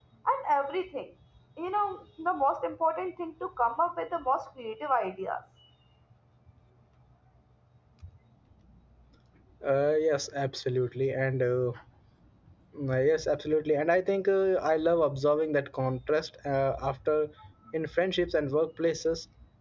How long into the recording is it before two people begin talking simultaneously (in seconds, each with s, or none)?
none